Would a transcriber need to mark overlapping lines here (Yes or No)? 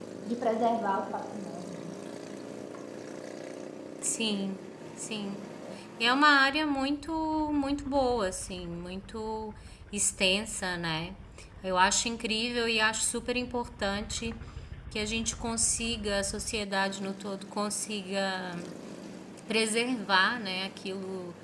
No